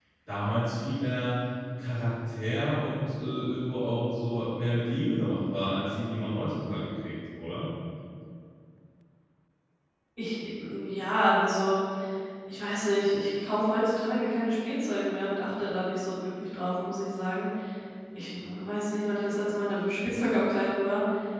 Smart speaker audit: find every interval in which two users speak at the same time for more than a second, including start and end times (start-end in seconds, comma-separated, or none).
none